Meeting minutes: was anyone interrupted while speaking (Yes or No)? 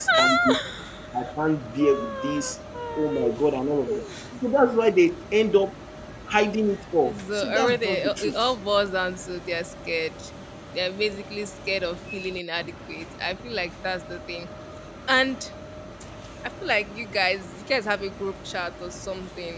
Yes